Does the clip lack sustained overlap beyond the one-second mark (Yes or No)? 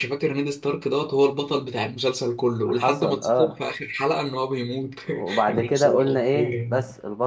No